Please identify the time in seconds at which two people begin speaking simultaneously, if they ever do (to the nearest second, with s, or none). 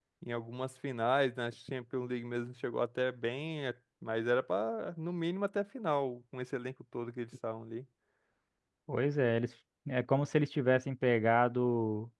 none